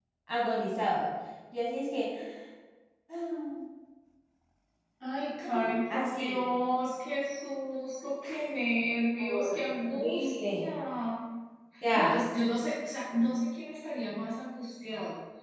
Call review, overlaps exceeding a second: present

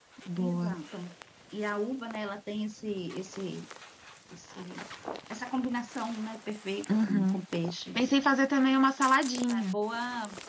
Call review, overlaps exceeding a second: none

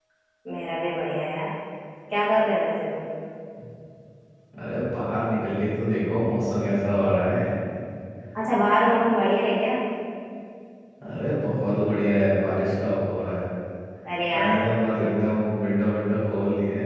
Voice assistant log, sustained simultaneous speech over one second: none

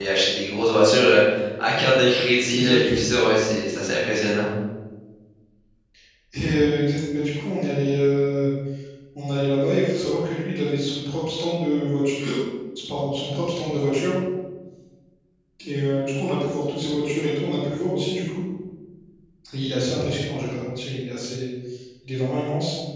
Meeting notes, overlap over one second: none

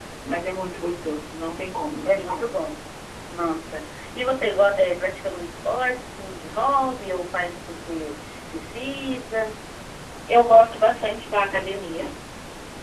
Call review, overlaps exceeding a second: none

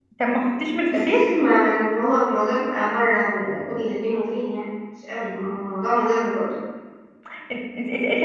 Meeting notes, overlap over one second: none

